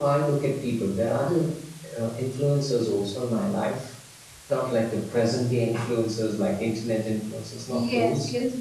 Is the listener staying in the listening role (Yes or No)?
No